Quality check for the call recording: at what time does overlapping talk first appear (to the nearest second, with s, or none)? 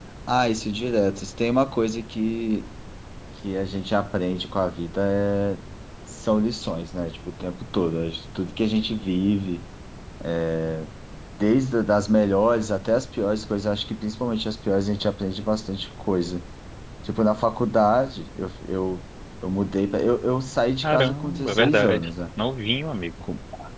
21 s